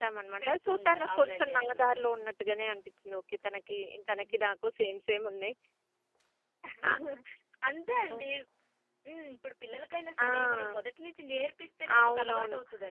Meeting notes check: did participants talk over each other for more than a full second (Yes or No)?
Yes